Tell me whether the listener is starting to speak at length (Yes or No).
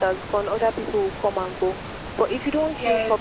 No